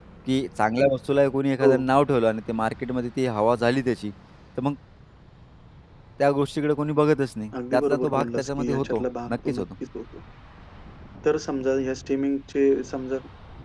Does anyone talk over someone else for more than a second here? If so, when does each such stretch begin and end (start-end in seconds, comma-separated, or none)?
7.7-9.6